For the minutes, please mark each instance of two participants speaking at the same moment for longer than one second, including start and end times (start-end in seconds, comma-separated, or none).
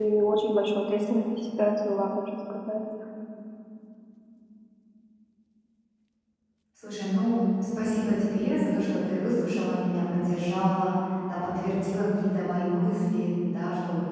none